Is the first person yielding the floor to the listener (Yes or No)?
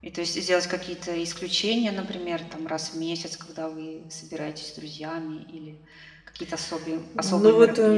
Yes